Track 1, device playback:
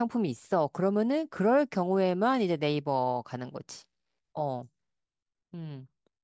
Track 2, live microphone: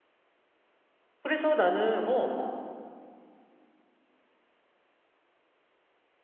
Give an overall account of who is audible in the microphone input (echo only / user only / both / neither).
user only